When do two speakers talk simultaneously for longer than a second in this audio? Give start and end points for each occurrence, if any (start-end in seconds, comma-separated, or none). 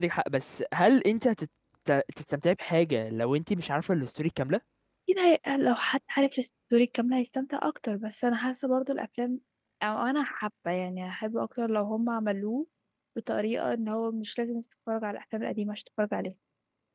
none